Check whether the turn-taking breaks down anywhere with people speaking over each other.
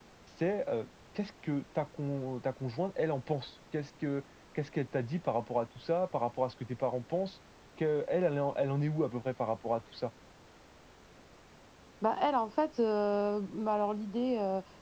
No

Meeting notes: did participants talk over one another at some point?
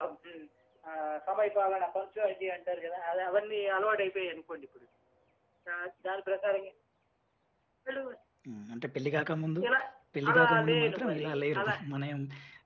Yes, from 10.3 s

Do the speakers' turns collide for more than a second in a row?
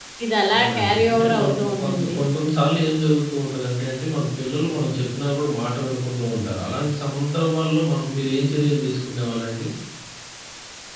Yes, from 0.5 s

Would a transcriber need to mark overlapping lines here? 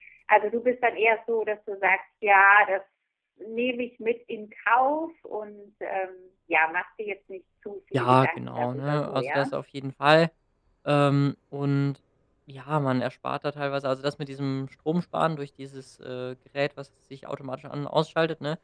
Yes, from 7.9 s

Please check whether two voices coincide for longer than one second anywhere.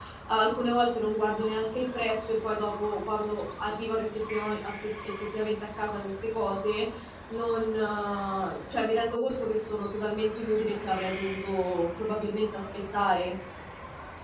No

